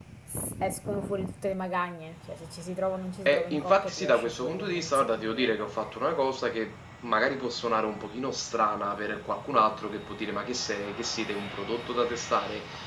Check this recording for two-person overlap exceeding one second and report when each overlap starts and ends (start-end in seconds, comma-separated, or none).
3.2-5.5